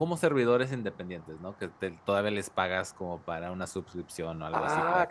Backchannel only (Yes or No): No